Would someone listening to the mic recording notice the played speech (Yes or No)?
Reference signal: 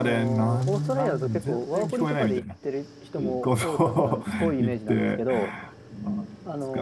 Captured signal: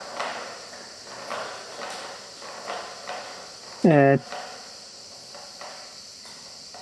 No